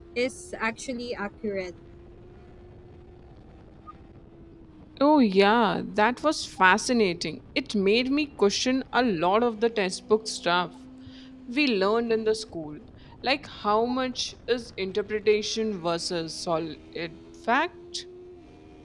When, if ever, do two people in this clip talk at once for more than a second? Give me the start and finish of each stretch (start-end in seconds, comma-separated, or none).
none